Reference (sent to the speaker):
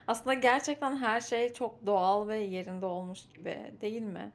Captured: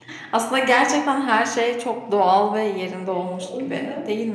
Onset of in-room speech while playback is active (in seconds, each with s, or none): 3.1 s